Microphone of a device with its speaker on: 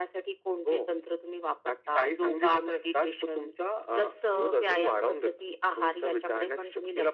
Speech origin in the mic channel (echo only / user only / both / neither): echo only